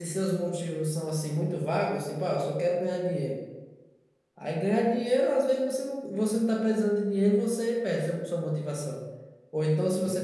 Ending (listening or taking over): listening